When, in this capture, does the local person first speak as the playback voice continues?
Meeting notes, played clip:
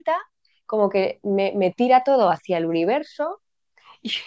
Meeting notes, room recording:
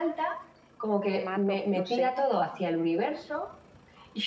1.0 s

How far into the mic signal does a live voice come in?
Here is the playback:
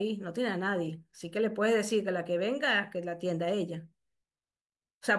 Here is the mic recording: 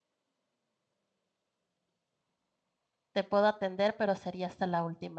3.1 s

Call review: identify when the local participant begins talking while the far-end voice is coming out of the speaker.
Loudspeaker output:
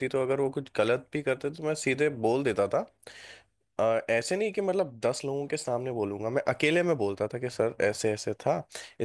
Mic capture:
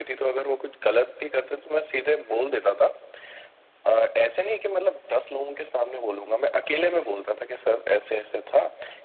none

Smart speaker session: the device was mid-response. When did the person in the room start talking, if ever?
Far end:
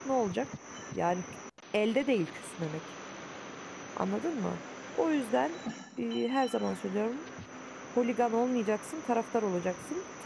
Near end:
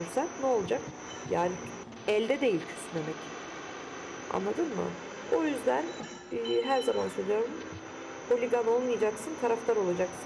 none

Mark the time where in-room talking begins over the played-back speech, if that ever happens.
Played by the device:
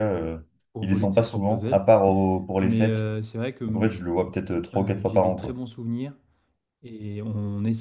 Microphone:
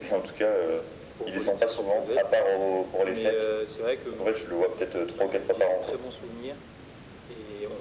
none

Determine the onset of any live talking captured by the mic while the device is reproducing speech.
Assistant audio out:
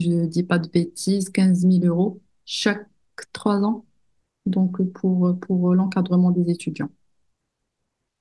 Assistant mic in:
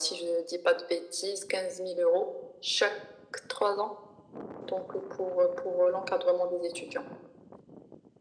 none

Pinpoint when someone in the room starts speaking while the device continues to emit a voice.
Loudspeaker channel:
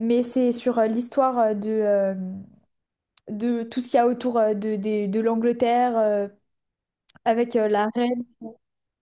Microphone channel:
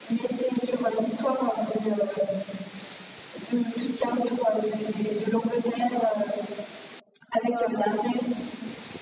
7.4 s

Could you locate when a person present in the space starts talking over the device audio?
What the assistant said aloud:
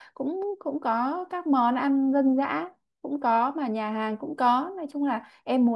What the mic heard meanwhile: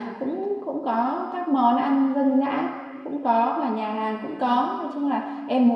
none

